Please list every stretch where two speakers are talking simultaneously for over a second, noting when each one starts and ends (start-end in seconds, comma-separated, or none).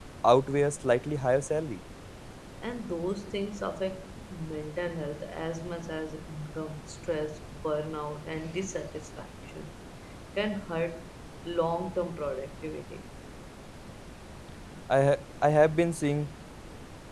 none